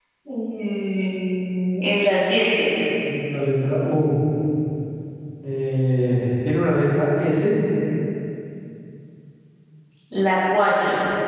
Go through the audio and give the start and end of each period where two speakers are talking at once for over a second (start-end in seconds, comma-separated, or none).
none